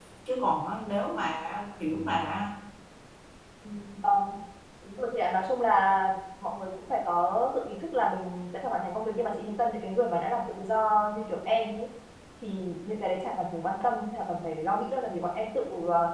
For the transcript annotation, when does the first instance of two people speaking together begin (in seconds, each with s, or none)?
none